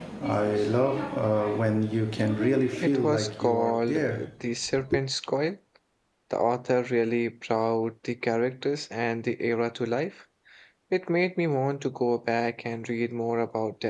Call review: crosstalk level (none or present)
present